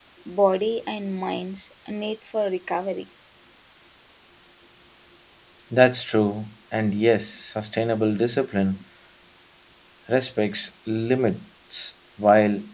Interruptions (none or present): none